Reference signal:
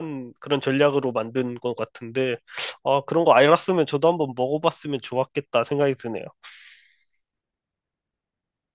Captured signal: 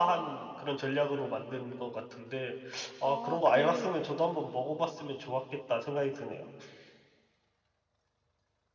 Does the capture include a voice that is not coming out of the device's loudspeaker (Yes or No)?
Yes